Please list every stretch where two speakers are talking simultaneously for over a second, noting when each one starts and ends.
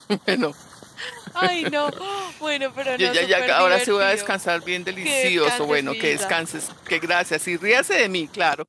3.0-4.4, 5.0-6.4

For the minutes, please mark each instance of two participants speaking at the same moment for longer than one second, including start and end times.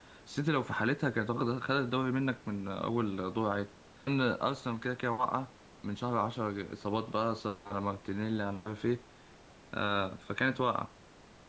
none

